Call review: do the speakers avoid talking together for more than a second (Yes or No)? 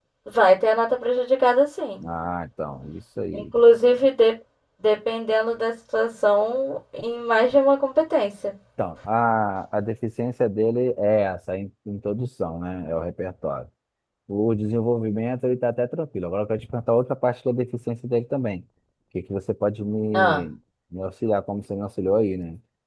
Yes